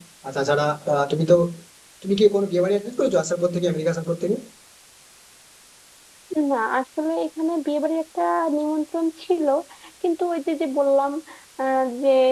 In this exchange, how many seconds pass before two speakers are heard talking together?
none

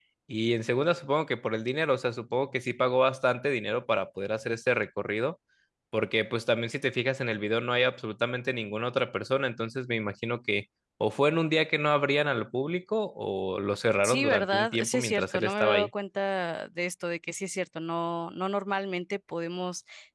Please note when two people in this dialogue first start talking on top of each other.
14.0 s

